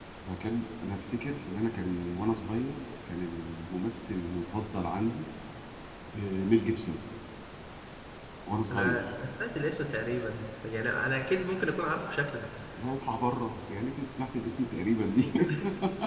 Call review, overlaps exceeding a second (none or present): none